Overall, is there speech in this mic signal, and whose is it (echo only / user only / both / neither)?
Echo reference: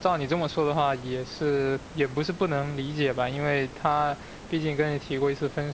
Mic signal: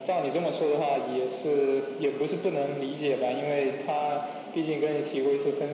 echo only